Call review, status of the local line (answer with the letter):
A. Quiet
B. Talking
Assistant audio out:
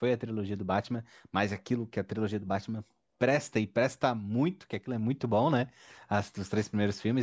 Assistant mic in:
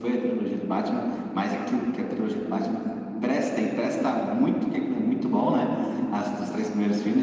A